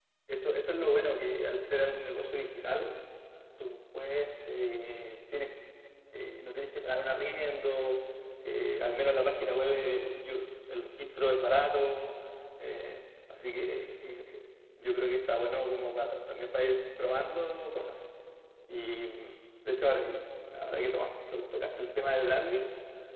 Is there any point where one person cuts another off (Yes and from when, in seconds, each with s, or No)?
No